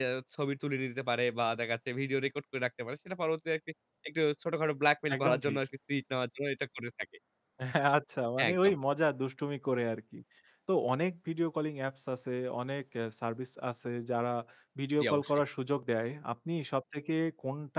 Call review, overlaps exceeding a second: none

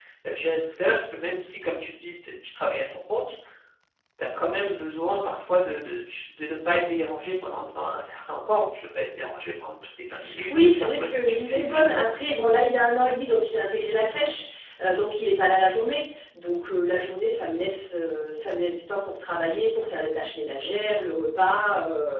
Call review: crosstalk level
present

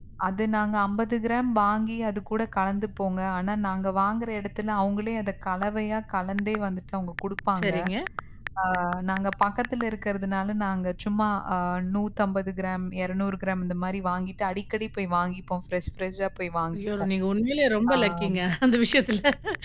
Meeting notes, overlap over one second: none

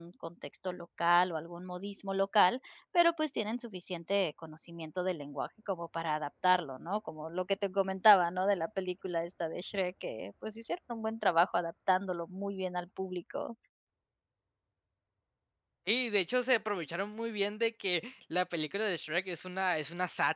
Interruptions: none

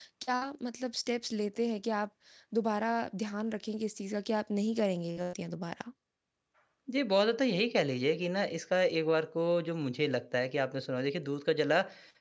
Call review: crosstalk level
none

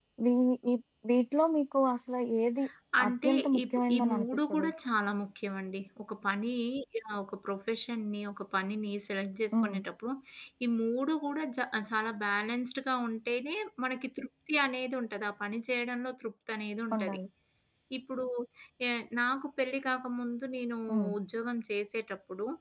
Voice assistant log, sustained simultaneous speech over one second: present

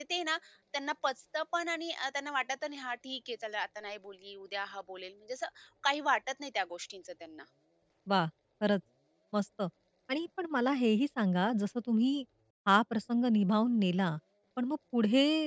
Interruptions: none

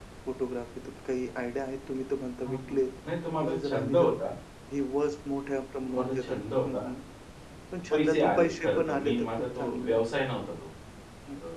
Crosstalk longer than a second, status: present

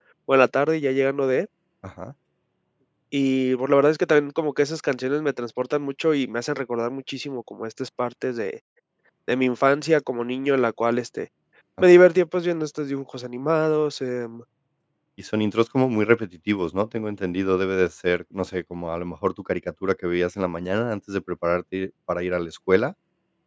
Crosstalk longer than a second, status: none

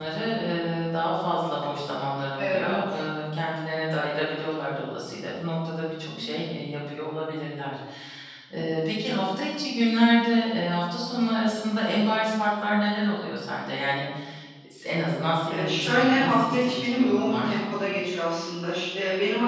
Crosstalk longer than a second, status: present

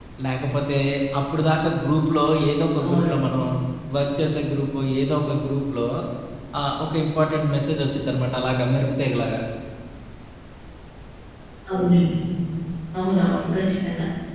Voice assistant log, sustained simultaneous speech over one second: none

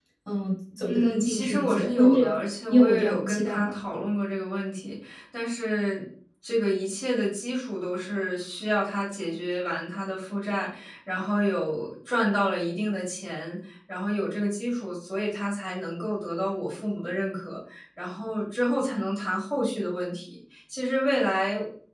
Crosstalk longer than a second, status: present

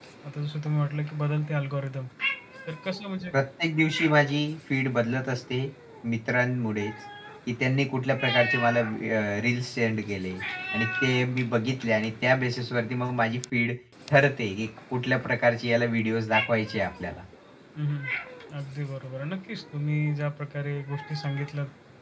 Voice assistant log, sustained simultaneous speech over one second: none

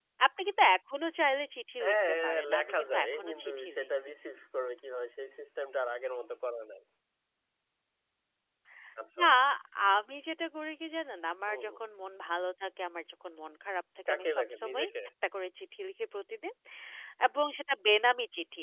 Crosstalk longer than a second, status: present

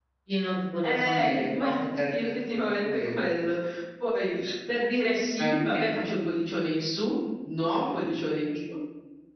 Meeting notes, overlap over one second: present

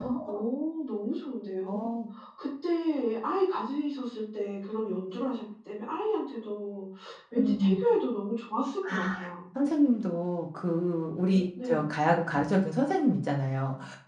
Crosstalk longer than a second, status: none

